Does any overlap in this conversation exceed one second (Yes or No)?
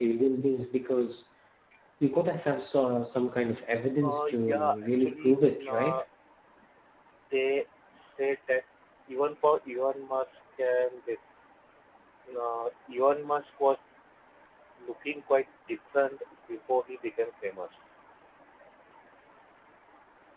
Yes